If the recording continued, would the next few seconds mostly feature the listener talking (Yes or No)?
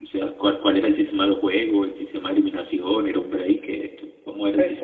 Yes